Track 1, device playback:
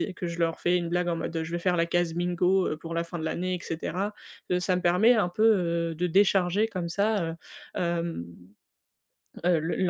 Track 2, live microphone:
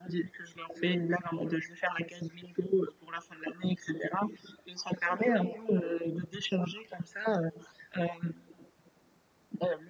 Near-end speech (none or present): none